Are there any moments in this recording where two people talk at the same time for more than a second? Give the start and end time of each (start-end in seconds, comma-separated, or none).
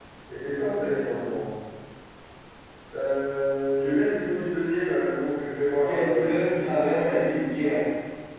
5.8-7.2